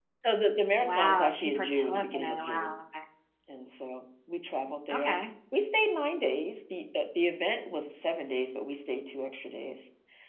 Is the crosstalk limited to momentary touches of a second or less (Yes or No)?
No